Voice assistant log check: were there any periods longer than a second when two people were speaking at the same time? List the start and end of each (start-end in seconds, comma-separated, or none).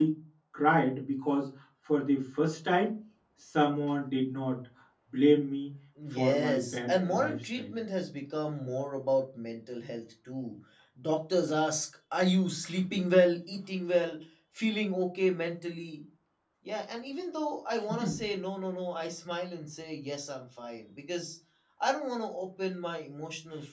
6.1-7.7